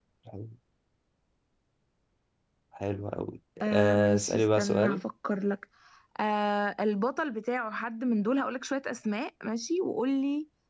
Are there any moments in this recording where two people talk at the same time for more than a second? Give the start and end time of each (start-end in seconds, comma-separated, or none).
3.6-5.0